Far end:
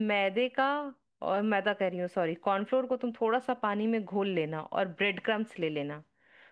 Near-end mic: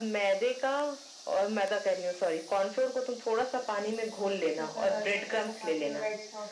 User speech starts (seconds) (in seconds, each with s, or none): 4.6 s